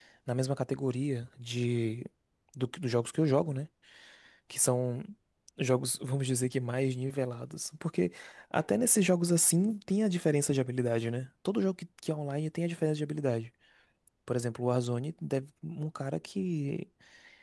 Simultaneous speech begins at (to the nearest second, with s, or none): none